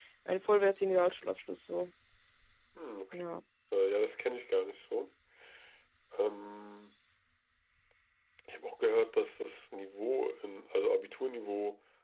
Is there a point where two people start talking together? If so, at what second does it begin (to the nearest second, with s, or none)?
none